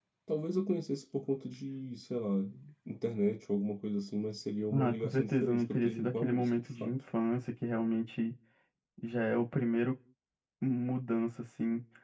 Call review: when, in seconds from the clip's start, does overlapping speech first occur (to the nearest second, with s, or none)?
5 s